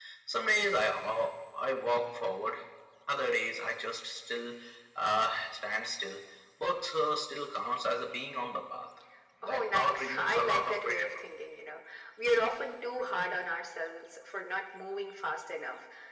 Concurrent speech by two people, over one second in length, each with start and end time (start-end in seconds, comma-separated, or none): 9.4-11.1